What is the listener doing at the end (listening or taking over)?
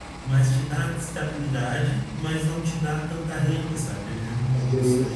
listening